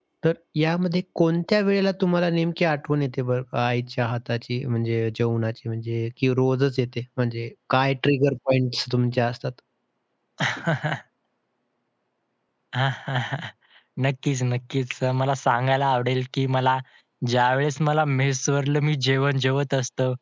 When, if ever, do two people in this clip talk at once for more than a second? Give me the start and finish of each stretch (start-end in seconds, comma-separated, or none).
none